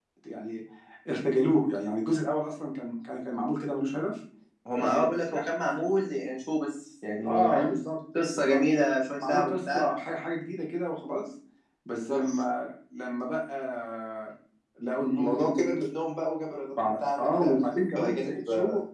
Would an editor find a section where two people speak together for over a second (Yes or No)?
Yes